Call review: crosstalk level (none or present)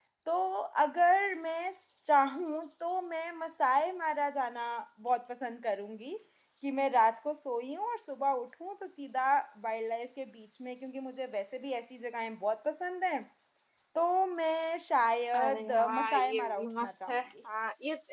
present